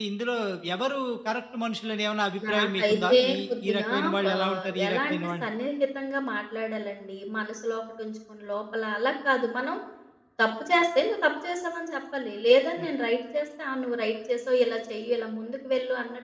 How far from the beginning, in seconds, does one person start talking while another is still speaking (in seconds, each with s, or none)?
2.4 s